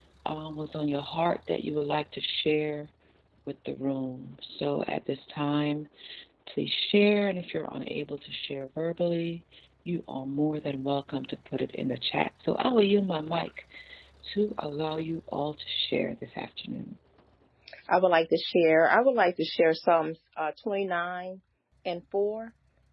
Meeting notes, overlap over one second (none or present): none